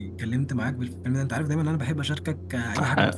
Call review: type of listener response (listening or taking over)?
taking over